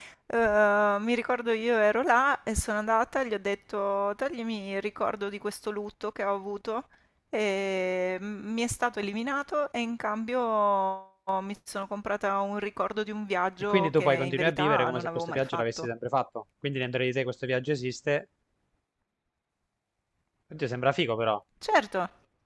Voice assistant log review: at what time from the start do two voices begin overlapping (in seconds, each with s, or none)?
13.7 s